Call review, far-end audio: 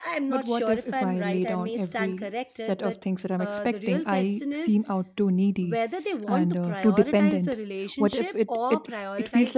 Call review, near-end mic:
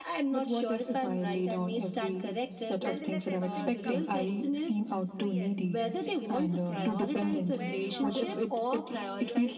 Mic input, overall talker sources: both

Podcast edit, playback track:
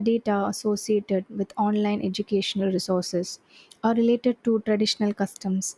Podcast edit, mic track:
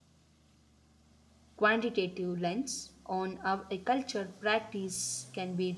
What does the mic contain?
user only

